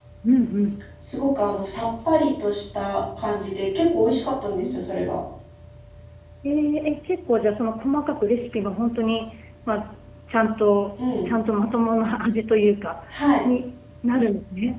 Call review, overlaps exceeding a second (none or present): none